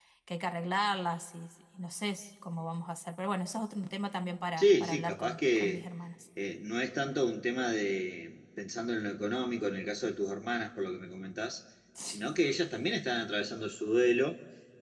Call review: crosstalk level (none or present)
present